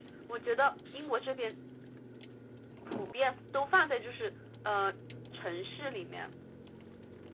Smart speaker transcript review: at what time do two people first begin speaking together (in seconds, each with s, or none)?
none